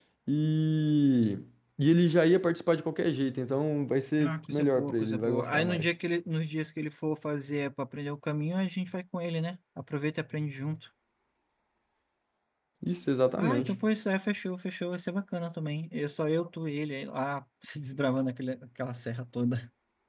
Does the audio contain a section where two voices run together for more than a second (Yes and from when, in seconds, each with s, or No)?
Yes, from 4.2 s